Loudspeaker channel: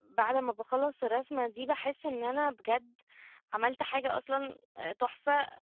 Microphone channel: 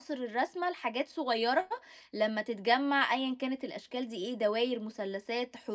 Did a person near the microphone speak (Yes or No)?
Yes